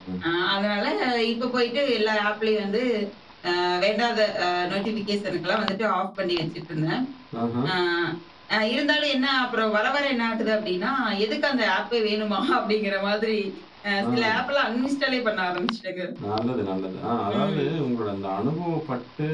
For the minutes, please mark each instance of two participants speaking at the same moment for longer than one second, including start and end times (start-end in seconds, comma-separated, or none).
none